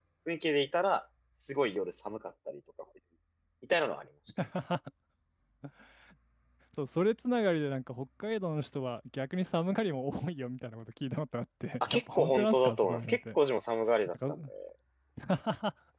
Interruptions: present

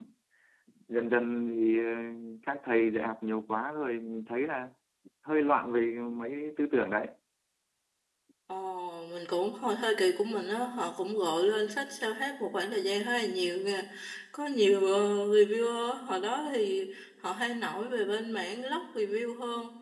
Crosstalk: none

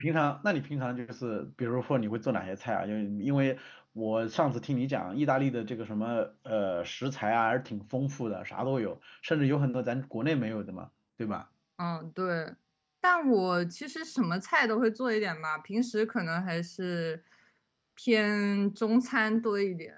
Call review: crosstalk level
none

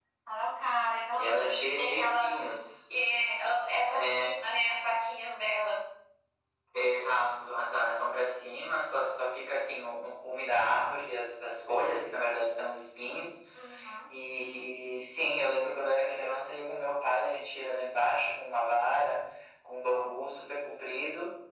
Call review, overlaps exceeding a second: present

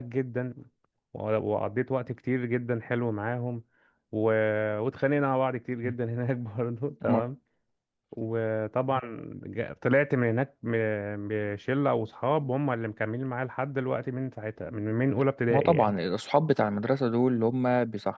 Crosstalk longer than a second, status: none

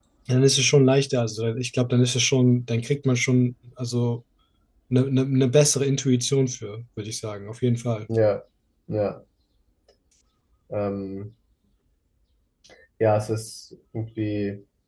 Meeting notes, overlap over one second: none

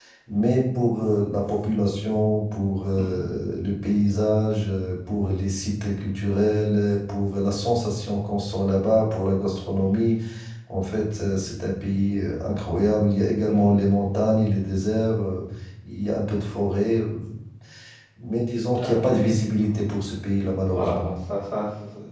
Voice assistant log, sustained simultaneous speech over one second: none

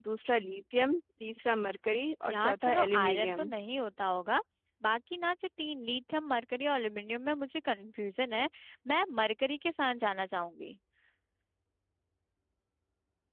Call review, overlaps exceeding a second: present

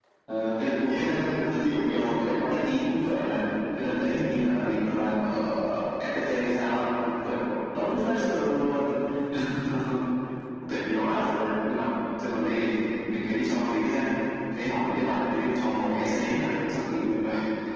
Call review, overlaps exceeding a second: present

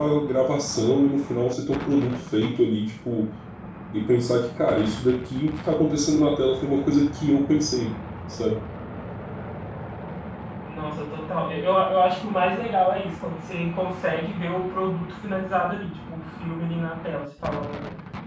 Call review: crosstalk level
none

